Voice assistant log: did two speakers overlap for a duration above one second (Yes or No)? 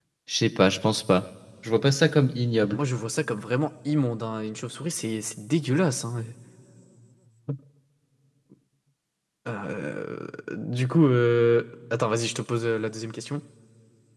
No